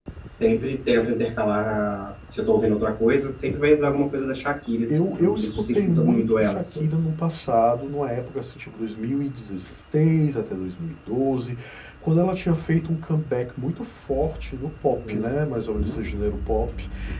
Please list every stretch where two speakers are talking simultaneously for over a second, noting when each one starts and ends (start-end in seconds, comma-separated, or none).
4.9-6.8